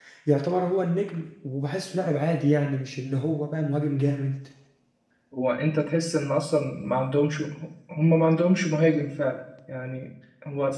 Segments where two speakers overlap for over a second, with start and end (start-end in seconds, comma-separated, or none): none